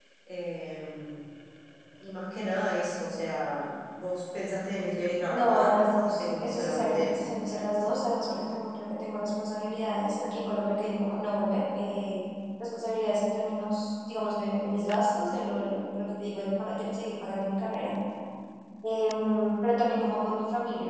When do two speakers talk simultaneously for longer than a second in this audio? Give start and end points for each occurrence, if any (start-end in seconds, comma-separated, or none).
5.3-7.6